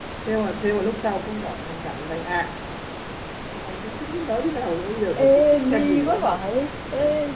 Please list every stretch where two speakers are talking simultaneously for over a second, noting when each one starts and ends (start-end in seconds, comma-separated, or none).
5.2-6.4